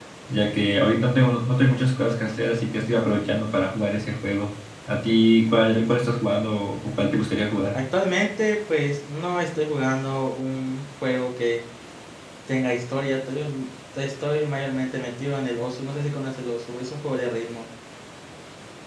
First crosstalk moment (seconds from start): none

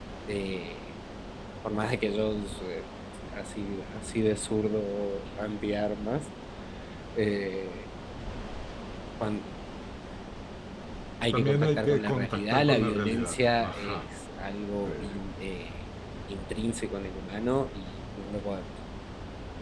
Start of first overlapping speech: 11.3 s

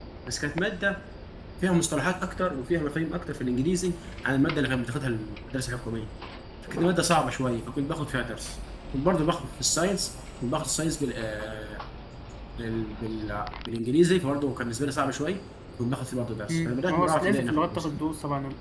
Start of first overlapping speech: 16.5 s

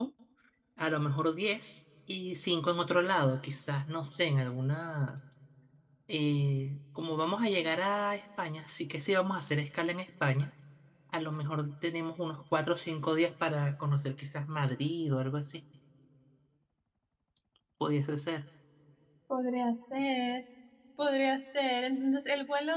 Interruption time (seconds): none

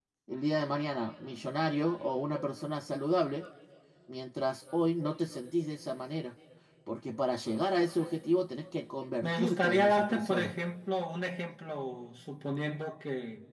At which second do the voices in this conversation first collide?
9.2 s

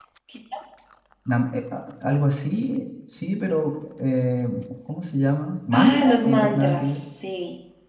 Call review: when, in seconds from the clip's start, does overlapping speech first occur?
5.7 s

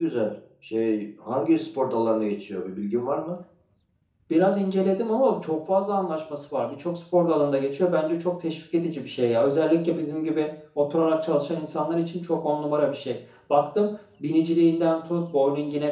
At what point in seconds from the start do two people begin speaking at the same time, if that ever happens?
none

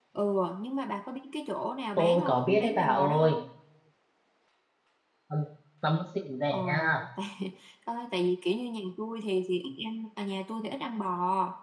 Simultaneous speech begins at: 2.0 s

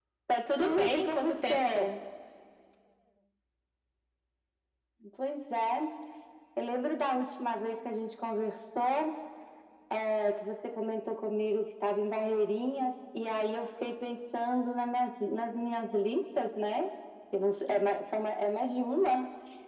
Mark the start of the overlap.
0.6 s

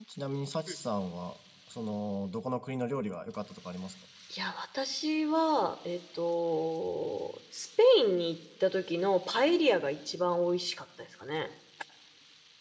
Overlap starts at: none

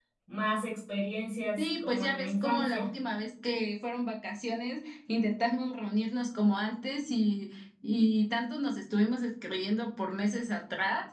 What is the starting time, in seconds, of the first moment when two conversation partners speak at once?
1.6 s

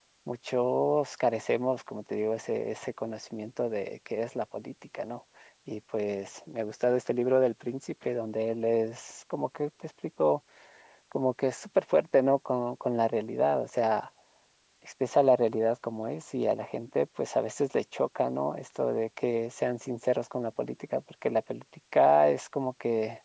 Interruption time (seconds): none

